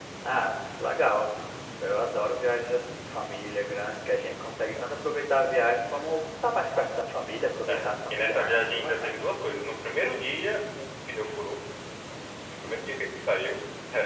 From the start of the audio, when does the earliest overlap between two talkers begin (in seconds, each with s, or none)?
7.7 s